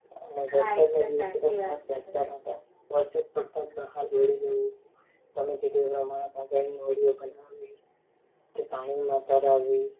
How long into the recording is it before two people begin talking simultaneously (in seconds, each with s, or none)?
0.5 s